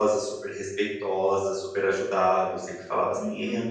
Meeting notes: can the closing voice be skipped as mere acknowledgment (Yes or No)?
Yes